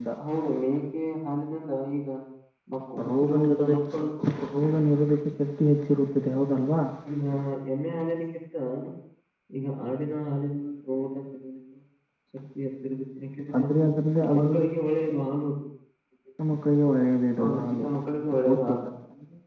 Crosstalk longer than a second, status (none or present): present